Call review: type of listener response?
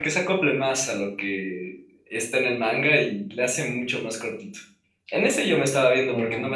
listening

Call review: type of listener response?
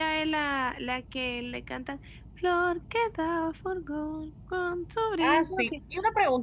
taking over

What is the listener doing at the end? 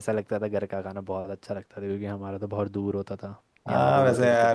taking over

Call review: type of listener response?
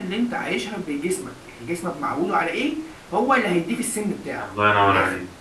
taking over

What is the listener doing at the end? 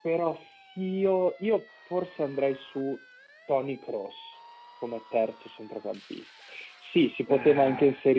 listening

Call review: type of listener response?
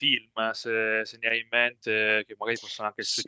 listening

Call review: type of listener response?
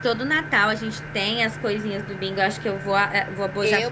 taking over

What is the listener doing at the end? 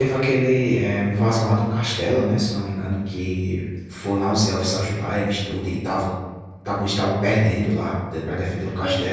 taking over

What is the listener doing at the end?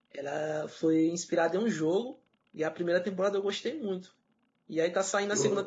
listening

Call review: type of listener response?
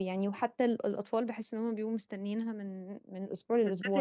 taking over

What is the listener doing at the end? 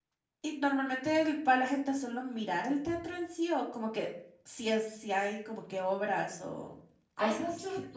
taking over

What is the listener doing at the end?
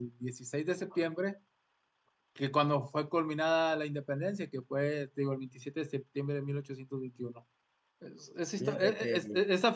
listening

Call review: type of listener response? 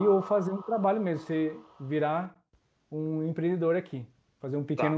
taking over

